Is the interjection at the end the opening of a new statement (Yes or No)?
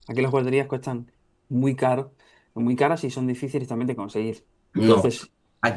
Yes